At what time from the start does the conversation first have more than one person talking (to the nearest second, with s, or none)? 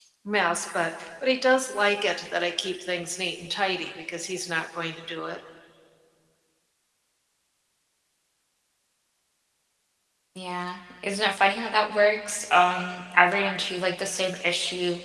none